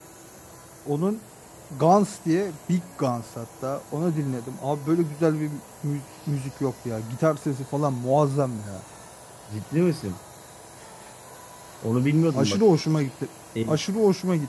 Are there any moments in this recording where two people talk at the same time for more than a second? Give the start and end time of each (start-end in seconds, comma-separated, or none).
none